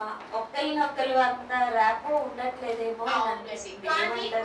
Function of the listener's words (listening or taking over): taking over